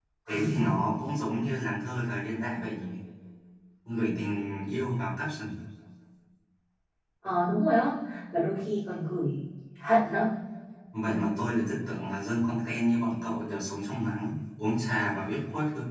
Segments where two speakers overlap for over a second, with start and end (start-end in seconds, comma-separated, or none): none